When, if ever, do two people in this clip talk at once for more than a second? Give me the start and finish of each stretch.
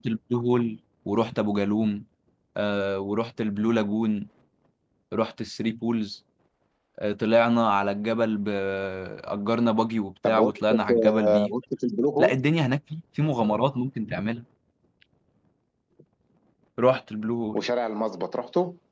10.2-11.5

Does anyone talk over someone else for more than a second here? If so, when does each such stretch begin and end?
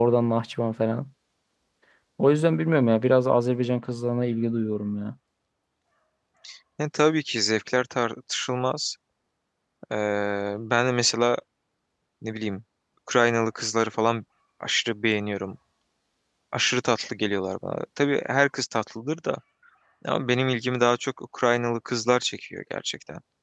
none

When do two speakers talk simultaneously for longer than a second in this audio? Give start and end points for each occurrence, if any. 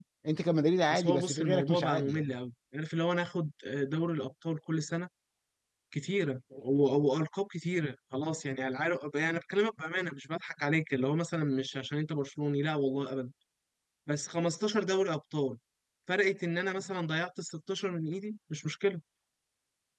0.9-2.4

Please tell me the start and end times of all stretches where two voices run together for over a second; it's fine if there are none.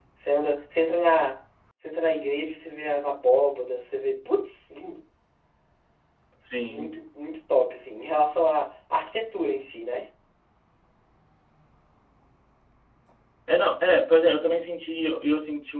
none

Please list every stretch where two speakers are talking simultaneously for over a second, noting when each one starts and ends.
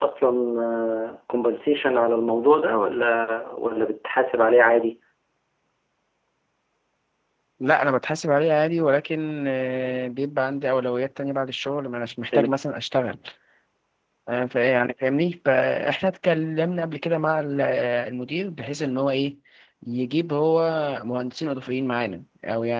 none

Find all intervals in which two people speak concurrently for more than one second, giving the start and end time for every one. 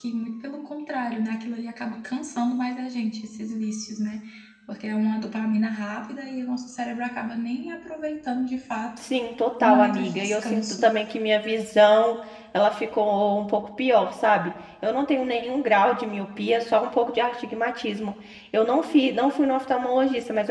9.6-10.9

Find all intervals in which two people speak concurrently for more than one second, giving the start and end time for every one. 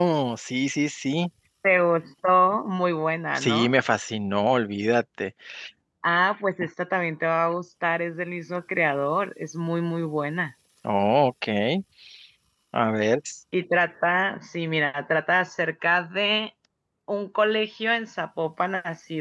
none

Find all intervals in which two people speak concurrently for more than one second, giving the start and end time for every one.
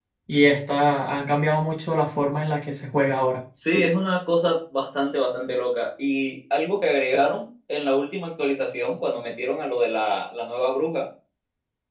none

